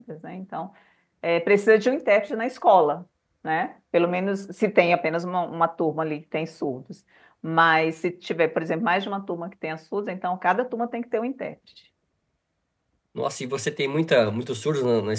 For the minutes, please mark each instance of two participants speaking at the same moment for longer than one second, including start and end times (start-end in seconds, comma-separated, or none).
none